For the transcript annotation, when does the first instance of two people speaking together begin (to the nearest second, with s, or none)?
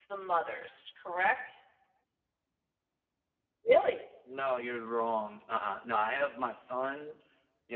none